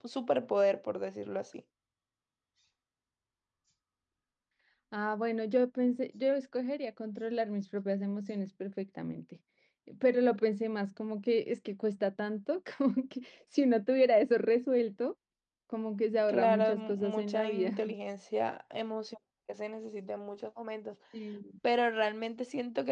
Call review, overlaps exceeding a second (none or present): present